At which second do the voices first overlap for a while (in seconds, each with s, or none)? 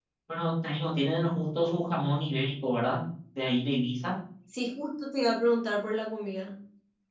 none